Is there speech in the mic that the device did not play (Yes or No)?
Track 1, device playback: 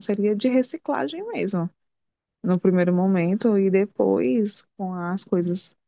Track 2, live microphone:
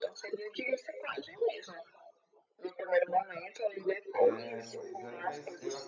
Yes